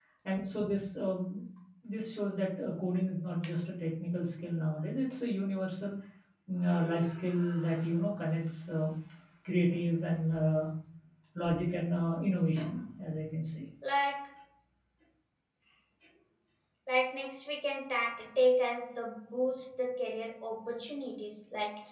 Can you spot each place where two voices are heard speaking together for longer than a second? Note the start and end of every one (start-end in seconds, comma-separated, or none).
none